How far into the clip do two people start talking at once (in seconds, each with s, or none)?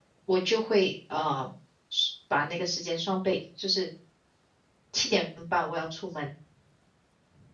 none